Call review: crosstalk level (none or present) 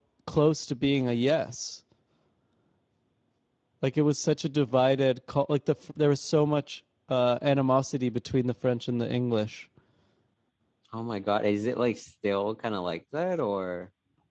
none